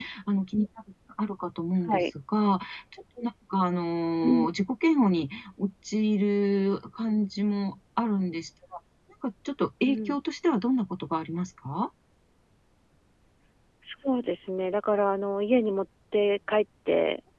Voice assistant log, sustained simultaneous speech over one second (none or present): none